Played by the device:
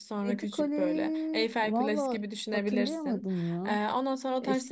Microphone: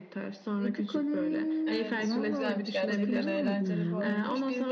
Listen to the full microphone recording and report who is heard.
both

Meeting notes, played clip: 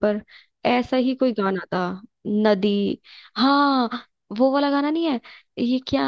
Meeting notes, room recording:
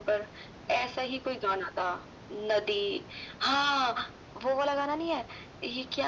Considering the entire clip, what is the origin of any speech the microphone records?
echo only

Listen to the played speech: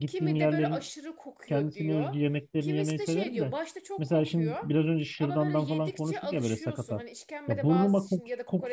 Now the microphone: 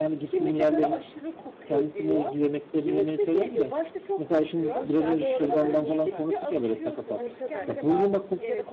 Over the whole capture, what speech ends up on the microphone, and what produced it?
both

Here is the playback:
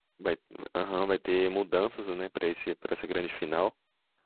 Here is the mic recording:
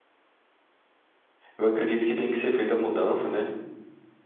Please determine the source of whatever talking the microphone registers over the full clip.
user only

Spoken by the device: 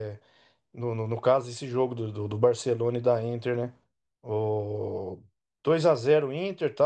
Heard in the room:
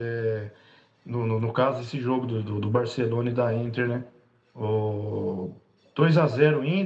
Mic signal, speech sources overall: echo only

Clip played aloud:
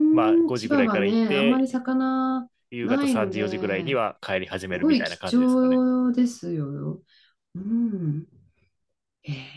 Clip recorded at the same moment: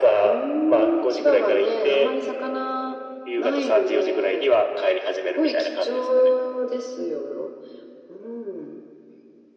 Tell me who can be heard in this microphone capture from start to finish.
echo only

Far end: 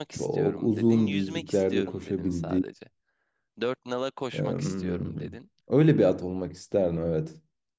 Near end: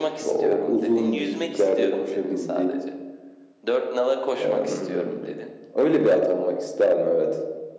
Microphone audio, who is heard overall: echo only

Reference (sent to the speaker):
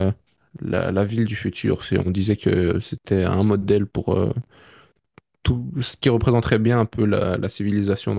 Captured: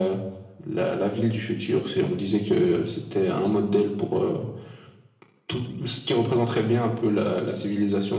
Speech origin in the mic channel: echo only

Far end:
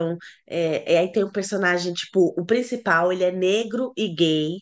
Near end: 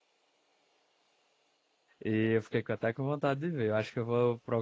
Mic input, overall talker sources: user only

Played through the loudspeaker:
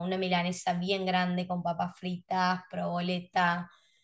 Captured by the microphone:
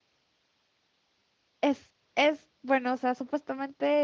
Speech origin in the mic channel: user only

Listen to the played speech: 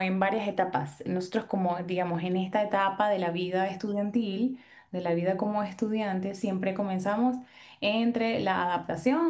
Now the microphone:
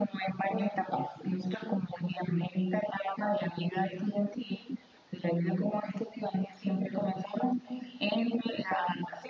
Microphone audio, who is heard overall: echo only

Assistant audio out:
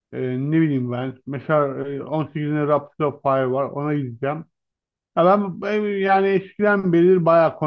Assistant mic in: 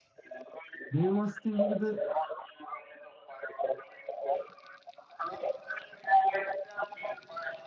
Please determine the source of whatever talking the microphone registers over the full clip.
both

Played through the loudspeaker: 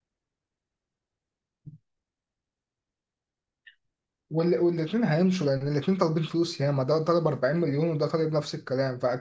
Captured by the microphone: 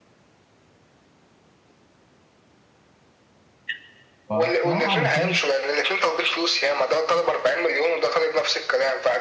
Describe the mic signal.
both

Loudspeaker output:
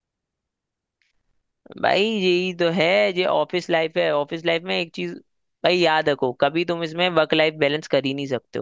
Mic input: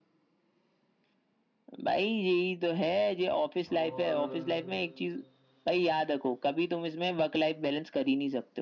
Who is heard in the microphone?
both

